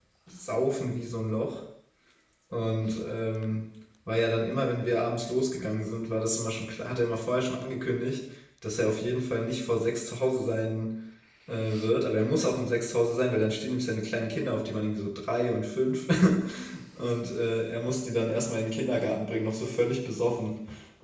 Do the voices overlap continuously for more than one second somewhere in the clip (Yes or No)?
No